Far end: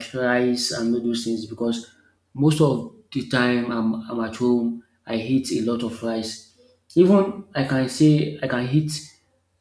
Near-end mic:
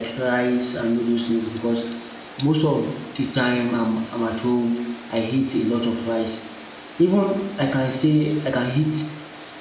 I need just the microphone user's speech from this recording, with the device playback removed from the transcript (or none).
none